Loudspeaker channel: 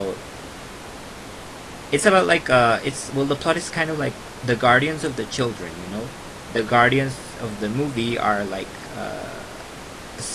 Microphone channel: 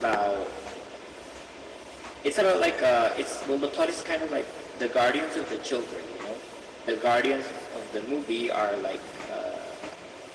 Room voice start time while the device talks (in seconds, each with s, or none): none